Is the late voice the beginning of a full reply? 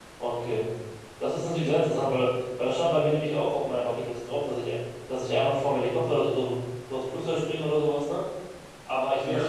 Yes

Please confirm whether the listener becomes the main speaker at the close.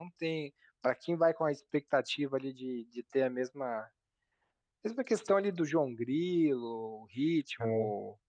No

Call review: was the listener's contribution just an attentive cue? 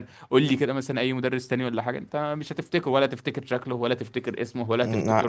No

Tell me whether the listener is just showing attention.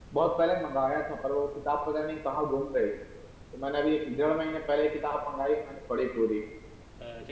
No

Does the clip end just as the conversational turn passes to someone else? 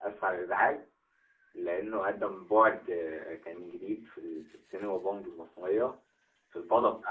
No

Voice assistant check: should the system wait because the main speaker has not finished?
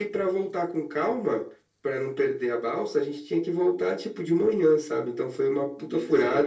Yes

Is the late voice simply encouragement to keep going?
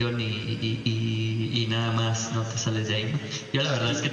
Yes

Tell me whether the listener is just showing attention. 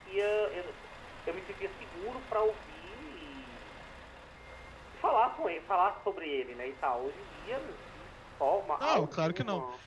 No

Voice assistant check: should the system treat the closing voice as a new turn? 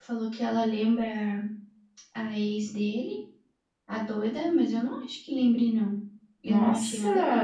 Yes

